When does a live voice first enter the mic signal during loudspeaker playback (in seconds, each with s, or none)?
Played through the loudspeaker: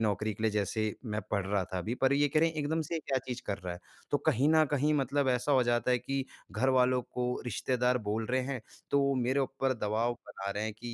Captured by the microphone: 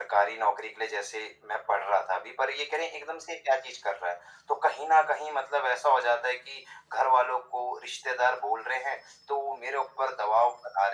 none